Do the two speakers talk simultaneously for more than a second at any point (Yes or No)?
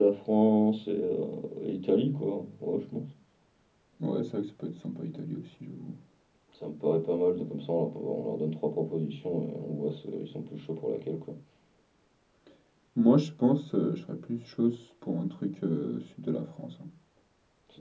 No